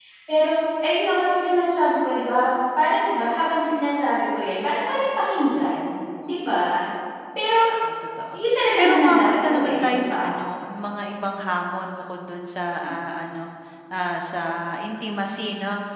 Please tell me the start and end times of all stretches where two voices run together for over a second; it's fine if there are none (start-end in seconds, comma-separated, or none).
8.8-10.3